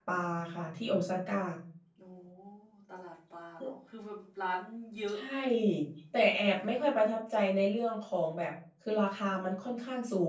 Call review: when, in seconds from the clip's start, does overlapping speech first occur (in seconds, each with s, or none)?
none